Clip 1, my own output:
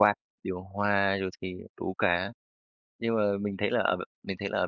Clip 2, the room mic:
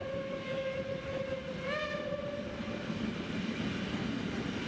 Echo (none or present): none